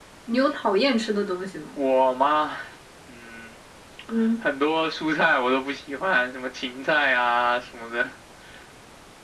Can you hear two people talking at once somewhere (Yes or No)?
No